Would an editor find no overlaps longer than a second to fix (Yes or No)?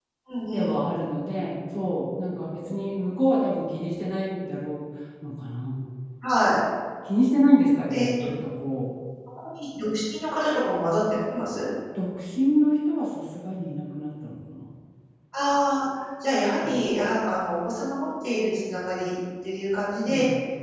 Yes